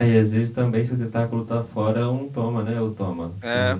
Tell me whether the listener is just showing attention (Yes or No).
No